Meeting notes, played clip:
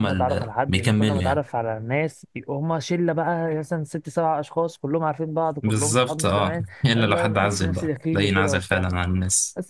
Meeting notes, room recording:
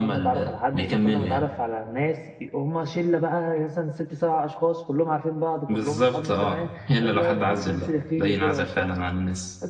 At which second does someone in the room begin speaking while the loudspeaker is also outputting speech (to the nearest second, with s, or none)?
none